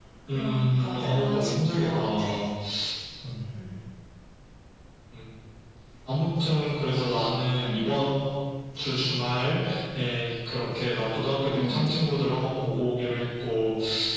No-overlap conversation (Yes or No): No